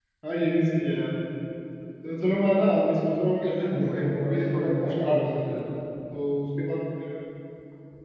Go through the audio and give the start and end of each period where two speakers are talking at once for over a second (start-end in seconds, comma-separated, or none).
3.5-5.6